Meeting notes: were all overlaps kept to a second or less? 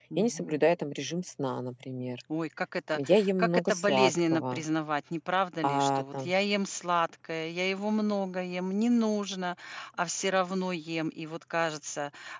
No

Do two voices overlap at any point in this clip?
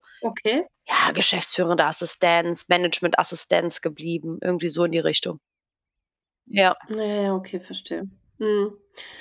No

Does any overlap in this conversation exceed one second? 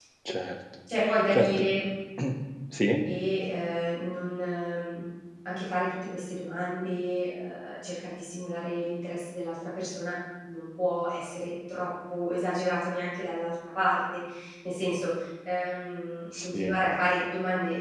No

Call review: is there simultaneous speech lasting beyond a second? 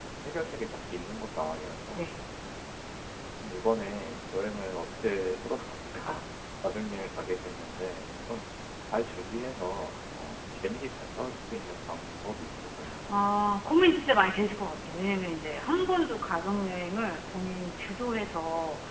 No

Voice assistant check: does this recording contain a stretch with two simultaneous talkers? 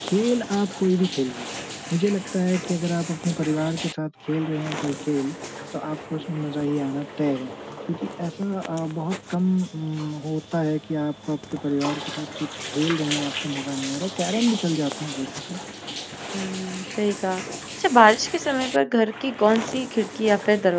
No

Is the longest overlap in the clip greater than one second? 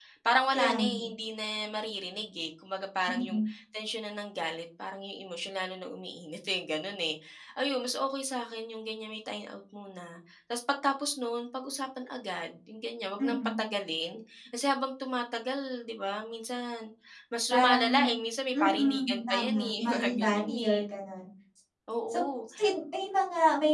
Yes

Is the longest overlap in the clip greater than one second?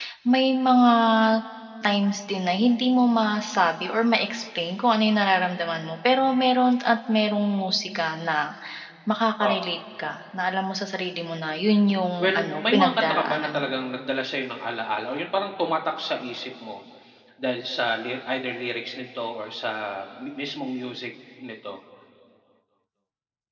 Yes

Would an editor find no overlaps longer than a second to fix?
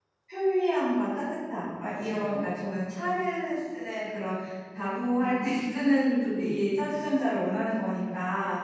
No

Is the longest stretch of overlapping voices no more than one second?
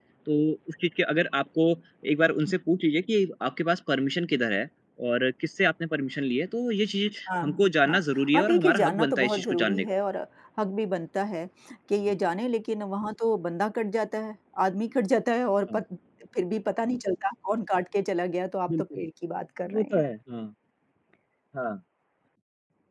No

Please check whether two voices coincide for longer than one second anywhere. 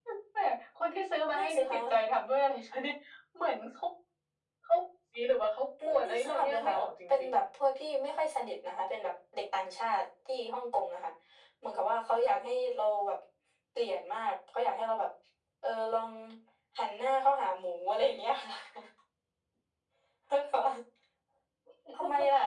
Yes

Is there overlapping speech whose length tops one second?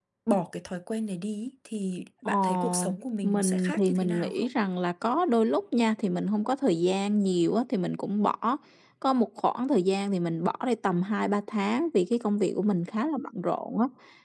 Yes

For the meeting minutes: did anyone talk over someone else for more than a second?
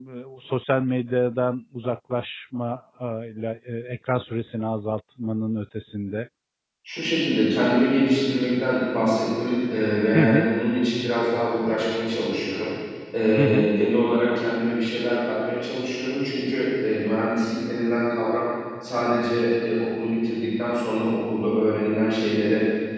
No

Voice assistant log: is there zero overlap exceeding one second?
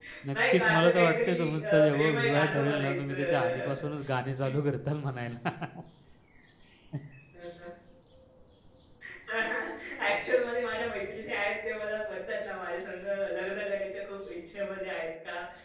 No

